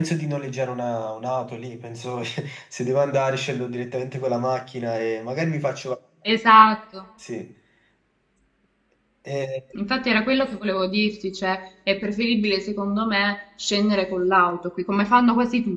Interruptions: none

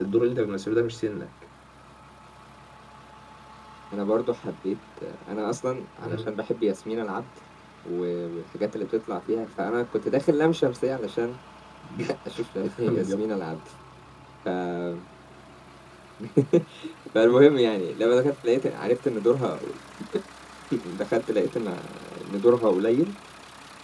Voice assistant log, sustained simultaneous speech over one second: none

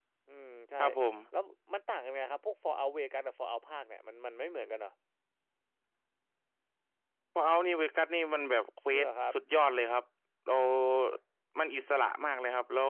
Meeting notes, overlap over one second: none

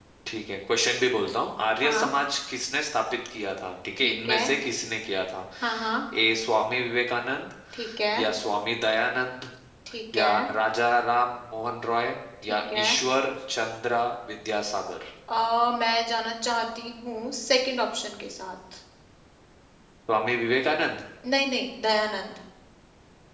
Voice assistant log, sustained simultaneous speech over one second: none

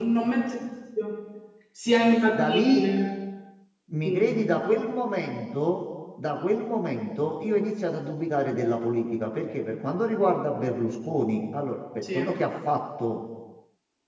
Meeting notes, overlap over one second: none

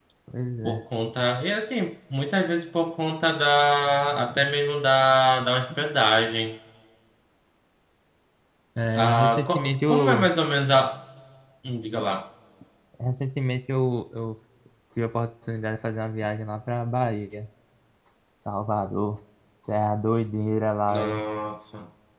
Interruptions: present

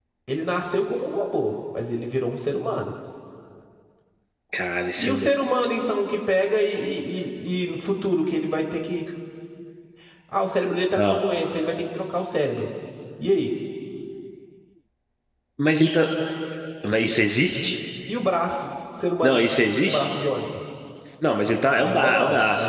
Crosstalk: present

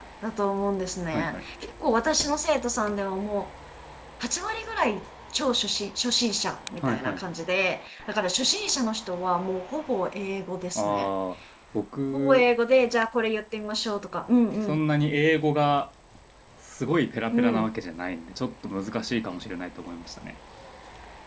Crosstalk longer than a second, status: none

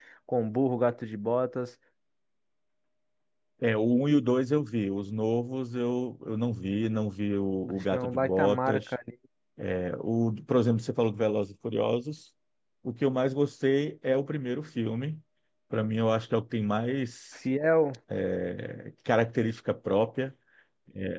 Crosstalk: present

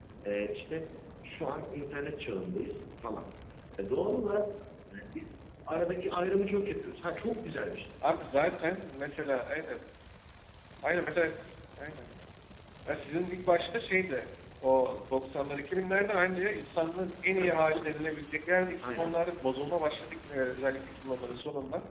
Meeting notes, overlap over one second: none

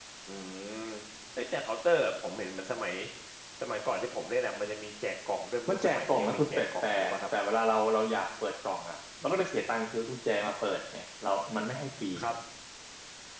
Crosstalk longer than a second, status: present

